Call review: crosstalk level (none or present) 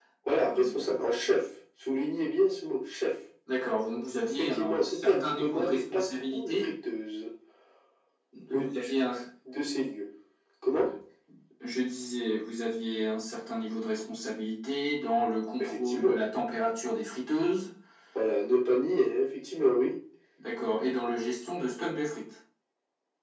present